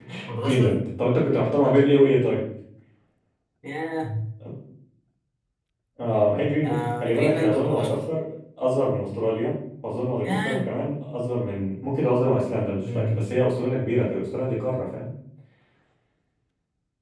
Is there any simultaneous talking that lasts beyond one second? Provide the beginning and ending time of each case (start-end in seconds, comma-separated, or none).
6.6-7.9